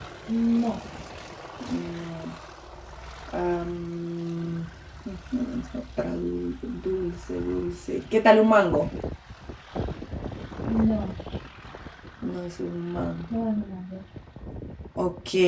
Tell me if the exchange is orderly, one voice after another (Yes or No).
Yes